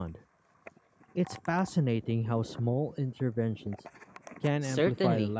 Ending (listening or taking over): taking over